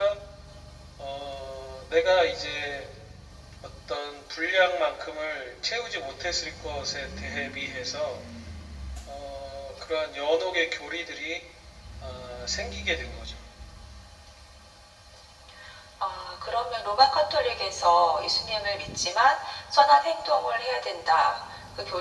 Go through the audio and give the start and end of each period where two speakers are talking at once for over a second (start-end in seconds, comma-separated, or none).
none